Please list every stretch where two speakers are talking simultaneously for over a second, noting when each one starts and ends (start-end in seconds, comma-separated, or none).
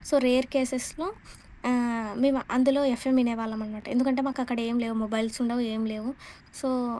none